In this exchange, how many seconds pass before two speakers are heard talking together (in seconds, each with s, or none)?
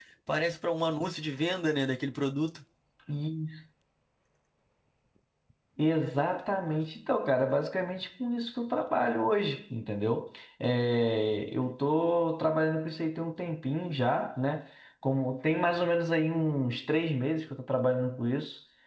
none